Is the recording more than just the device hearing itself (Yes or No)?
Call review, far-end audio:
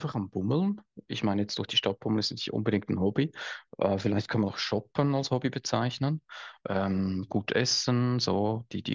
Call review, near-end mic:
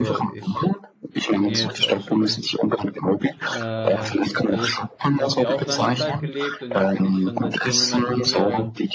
Yes